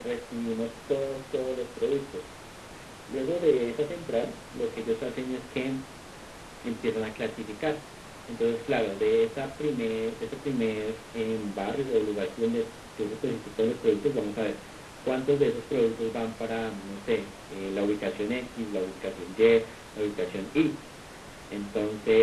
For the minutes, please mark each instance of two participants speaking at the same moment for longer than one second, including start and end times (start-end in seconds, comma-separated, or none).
none